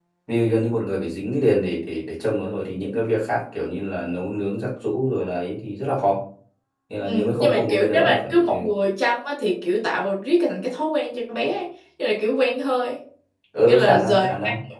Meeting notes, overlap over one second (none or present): present